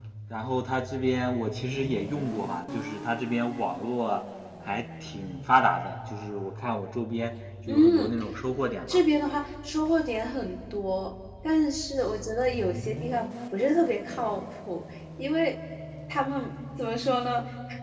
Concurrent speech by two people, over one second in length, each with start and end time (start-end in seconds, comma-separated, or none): none